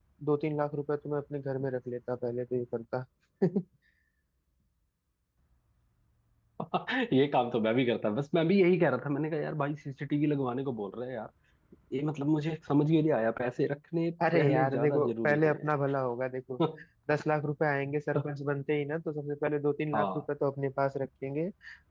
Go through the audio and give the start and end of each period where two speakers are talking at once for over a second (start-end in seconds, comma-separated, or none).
14.3-15.6